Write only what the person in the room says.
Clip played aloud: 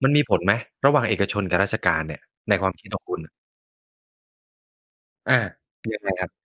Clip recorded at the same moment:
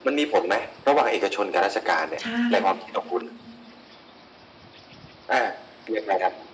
ใช่

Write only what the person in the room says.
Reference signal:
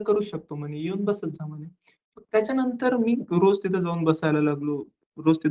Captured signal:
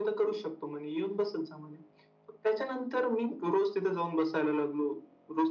none

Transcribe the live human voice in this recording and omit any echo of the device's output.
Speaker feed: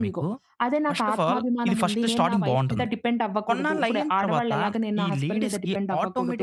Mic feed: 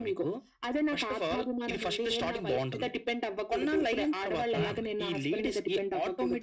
ఉంటుంది.

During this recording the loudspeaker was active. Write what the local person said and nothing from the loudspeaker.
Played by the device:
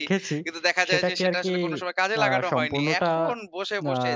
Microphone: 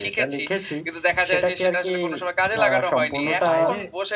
তো বাইরে,

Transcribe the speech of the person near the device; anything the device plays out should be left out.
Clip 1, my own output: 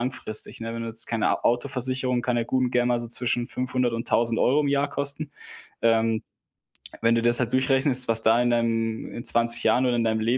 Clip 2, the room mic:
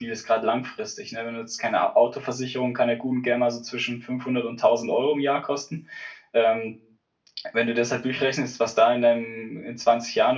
none

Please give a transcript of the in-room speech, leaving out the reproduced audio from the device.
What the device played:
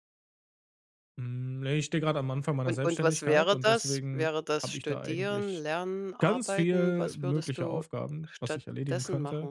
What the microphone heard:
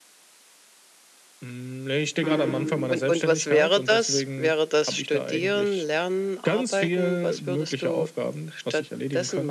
Mhm.

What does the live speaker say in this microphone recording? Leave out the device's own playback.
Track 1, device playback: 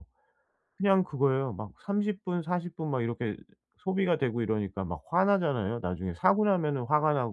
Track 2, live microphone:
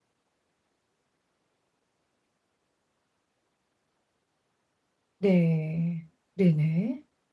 네. 네네.

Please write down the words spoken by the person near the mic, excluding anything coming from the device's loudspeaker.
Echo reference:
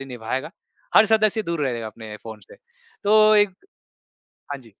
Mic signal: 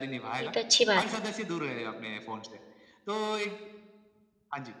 ये तो अच्छी बात है।

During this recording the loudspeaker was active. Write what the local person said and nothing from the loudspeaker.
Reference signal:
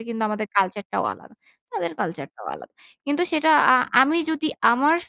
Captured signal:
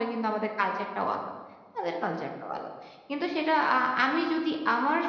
none

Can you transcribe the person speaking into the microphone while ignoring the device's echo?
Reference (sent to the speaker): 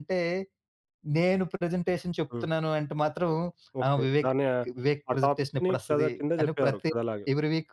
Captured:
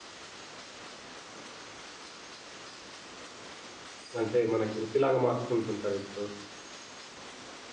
అంటే, మనకి వృత్తిలాగా మార్చుకుంటుంటారిప్పుడు.

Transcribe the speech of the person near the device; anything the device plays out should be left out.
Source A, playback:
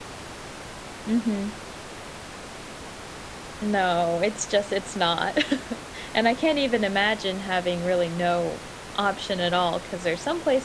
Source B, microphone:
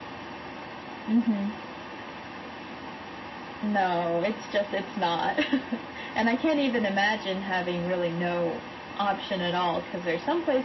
none

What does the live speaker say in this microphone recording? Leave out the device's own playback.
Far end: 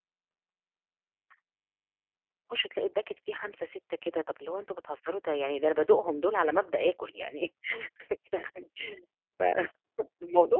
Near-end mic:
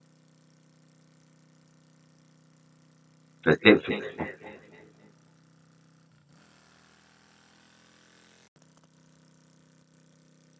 فتلاقي ف آه،

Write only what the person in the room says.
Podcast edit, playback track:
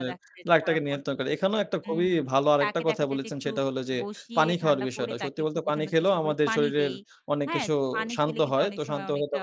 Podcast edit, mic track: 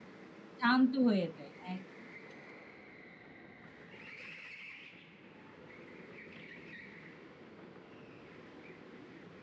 শান্ত হয়ে যায়। একদম।

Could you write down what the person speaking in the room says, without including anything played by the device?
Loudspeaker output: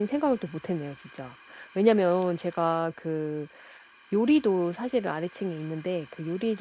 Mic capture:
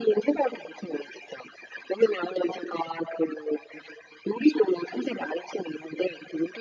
none

